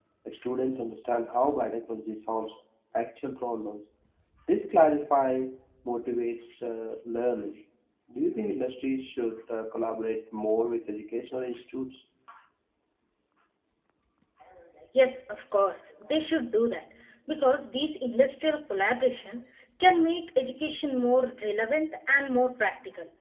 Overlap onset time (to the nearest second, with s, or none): none